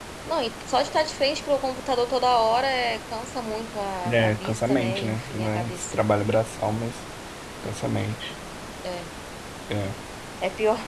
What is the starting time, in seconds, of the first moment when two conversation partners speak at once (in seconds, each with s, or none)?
4.0 s